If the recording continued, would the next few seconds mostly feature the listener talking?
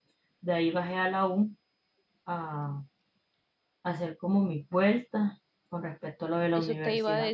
Yes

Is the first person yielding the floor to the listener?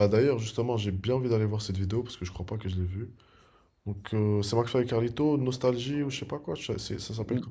Yes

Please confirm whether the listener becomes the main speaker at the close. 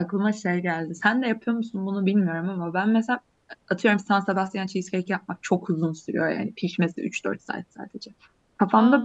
No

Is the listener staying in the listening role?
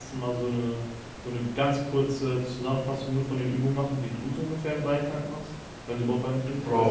No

